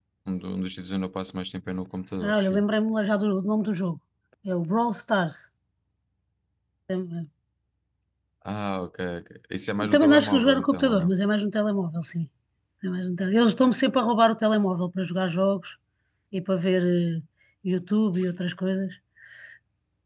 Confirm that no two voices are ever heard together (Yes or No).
No